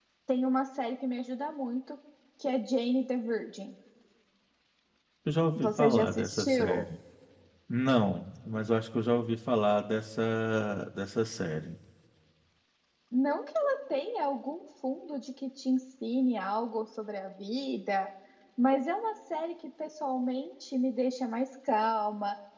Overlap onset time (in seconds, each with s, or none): 5.5 s